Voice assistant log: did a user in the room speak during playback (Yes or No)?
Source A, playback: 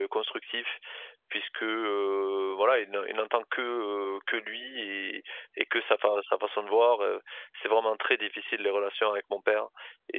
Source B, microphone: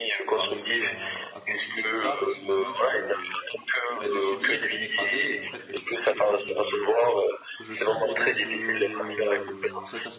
Yes